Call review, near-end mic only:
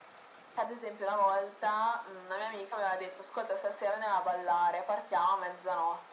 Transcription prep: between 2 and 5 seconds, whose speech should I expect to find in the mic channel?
echo only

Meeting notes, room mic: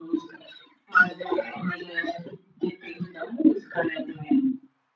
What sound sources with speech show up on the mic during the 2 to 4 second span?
echo only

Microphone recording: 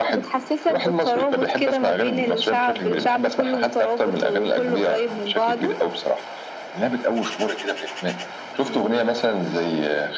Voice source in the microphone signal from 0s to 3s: echo only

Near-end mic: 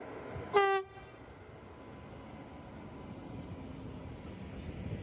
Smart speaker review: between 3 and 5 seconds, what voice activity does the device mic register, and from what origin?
neither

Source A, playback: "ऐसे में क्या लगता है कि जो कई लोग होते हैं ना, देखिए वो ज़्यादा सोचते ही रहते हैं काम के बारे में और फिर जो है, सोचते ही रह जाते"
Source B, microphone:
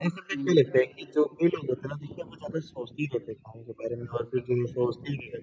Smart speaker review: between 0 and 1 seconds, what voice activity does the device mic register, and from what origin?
both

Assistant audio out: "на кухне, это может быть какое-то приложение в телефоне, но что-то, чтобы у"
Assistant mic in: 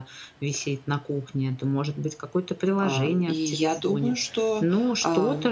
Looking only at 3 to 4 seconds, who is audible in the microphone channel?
both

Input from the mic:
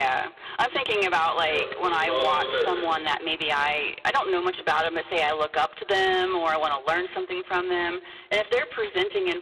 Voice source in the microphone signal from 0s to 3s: both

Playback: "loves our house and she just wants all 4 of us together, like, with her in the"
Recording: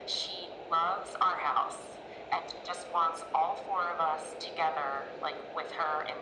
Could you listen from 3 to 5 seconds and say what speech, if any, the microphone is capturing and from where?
echo only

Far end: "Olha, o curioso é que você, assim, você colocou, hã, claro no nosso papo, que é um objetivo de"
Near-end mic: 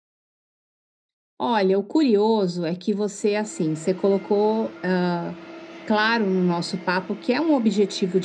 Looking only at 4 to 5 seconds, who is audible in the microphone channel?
echo only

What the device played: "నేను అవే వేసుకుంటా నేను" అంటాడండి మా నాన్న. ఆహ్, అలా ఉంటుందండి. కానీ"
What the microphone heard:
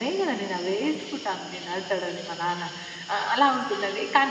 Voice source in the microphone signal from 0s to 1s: echo only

